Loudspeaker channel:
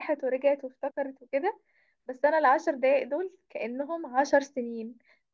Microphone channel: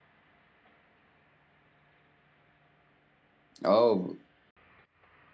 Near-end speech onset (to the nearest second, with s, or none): 4 s